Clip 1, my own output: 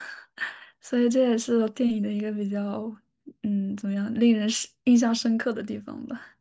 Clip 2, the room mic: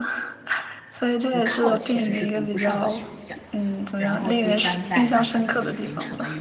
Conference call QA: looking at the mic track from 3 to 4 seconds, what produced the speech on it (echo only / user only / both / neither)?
both